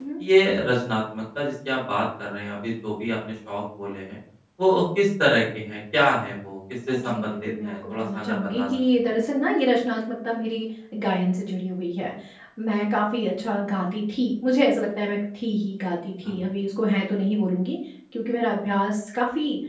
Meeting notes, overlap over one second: present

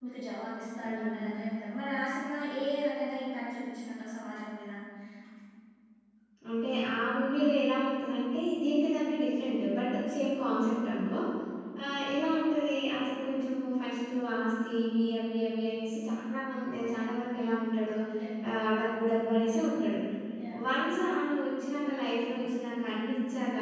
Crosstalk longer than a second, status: none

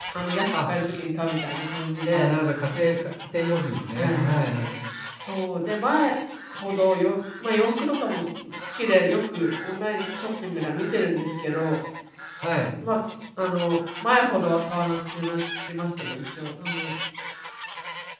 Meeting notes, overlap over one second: none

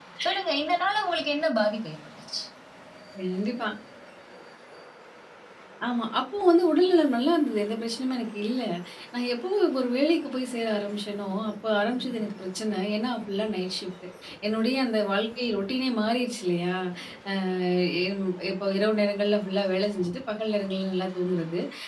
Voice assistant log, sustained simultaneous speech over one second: none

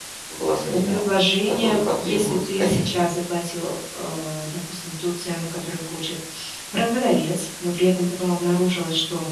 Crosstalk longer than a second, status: present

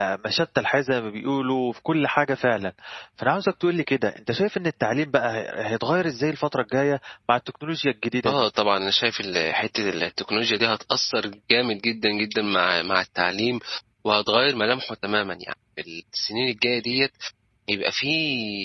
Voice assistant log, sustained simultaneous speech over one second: none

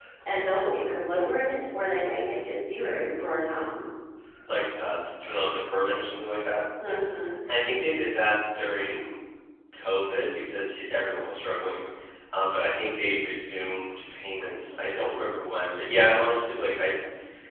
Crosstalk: none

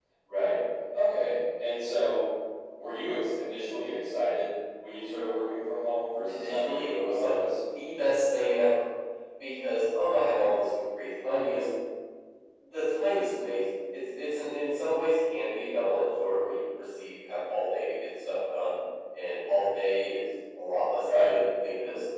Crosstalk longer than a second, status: present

